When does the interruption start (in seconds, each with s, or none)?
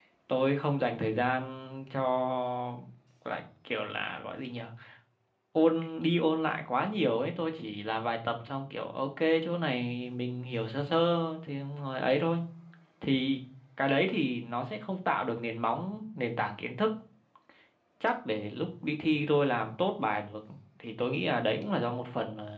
none